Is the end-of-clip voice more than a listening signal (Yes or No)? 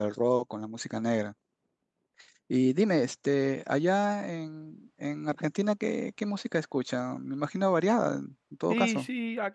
Yes